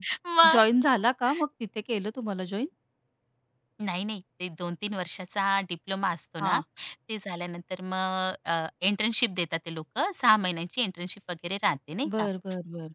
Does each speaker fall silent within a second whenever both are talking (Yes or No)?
Yes